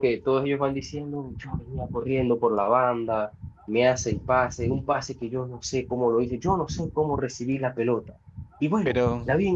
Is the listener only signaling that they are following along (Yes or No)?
Yes